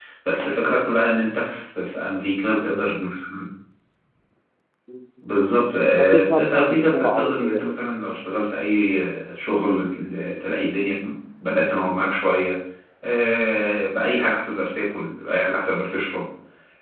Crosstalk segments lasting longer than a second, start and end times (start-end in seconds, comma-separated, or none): 6.0-7.8